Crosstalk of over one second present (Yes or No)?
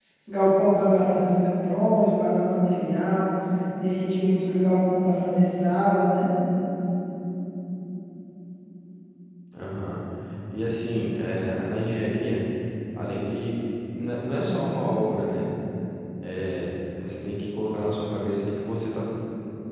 No